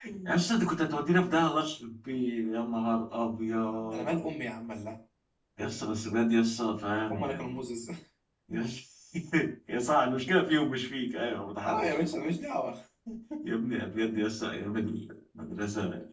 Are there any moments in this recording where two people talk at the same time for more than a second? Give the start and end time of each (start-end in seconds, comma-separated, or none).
none